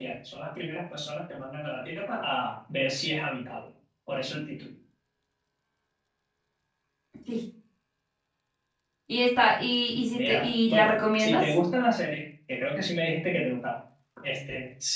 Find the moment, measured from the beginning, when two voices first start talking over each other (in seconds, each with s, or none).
10.1 s